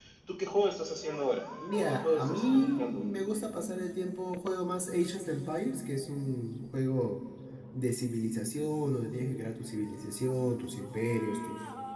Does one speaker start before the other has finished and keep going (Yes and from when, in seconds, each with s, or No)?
Yes, from 1.6 s